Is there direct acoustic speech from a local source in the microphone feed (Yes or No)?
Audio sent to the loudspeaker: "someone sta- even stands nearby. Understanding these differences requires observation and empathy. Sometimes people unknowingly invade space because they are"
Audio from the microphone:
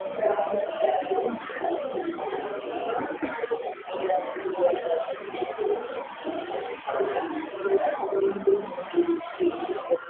No